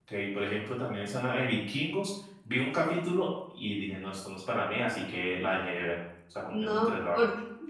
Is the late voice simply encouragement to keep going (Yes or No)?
No